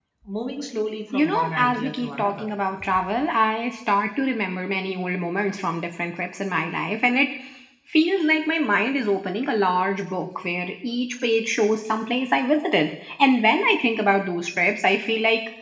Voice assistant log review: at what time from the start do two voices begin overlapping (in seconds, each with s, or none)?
1.1 s